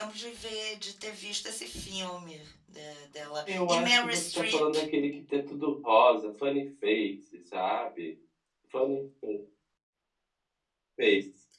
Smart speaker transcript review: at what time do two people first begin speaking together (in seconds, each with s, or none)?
3.5 s